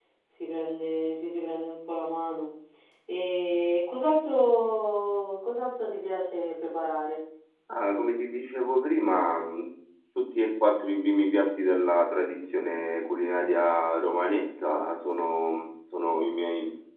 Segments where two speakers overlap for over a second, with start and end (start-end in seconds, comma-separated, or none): none